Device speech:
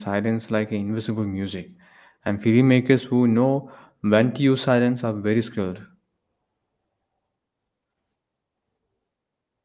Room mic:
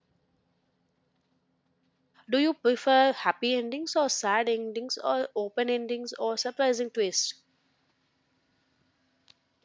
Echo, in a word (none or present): none